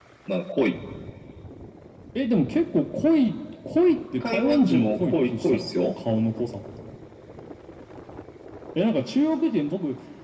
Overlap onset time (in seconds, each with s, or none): 4.2 s